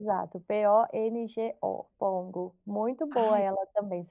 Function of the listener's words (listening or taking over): listening